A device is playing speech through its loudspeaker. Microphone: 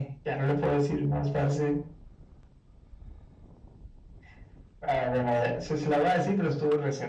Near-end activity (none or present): none